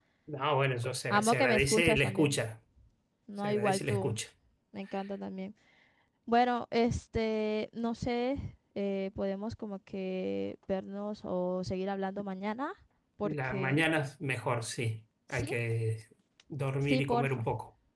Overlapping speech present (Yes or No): Yes